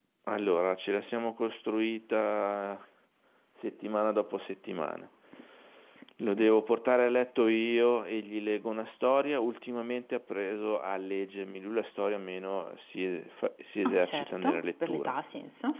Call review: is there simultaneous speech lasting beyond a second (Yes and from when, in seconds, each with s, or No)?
Yes, from 13.8 s